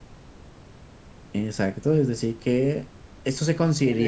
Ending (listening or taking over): taking over